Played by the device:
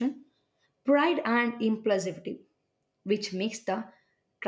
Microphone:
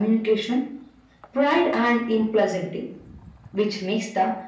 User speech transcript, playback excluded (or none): none